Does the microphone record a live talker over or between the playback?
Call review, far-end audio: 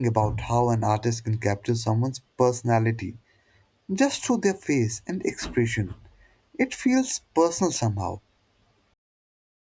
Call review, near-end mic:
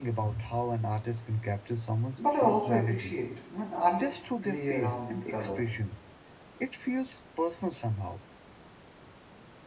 Yes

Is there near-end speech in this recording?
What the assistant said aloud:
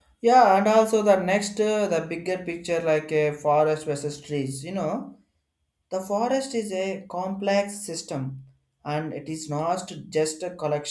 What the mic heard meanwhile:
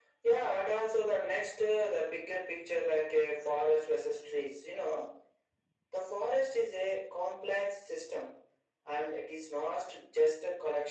No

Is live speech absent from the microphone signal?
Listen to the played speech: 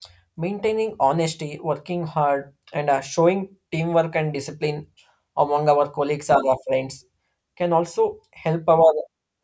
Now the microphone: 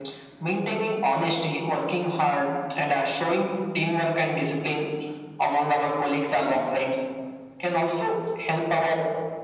Yes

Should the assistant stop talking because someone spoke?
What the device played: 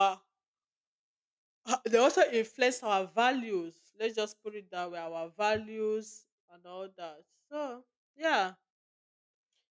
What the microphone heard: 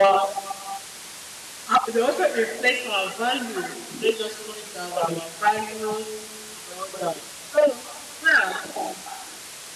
No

